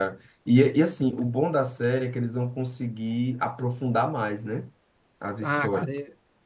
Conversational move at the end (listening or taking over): taking over